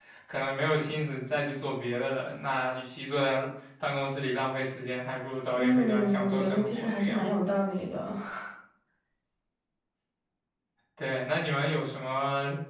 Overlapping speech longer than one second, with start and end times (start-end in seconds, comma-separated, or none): 5.6-7.3